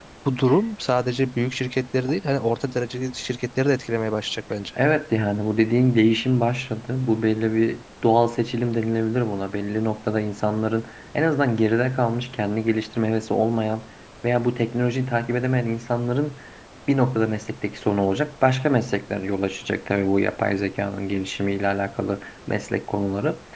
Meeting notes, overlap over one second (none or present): none